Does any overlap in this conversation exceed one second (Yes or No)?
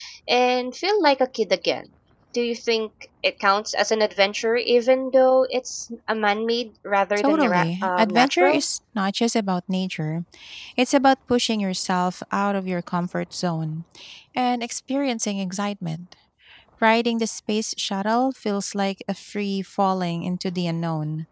Yes